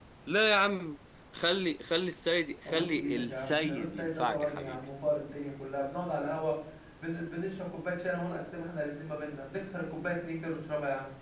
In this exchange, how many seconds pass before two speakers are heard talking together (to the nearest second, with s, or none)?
3 s